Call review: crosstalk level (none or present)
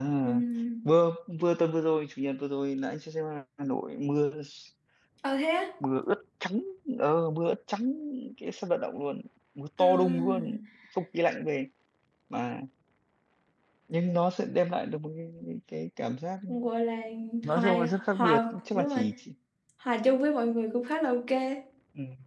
present